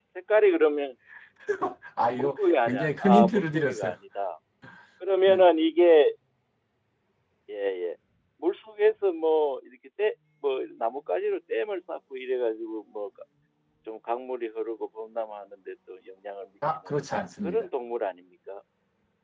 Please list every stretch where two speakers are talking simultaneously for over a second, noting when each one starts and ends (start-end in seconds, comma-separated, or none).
2.1-4.0